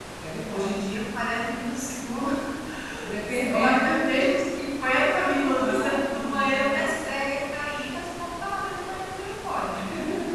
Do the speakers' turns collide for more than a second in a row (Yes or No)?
Yes